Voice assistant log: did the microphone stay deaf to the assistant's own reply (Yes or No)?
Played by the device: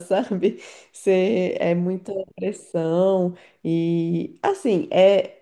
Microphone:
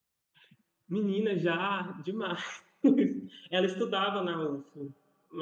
Yes